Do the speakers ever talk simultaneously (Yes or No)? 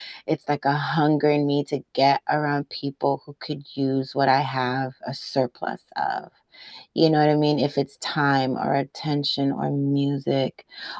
No